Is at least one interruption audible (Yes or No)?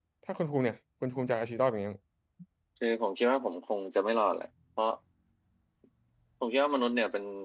No